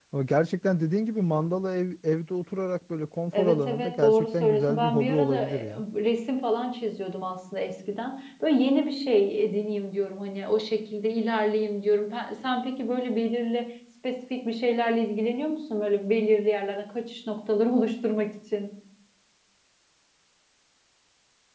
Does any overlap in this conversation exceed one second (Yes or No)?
Yes